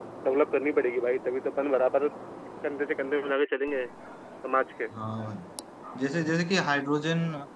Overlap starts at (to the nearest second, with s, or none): none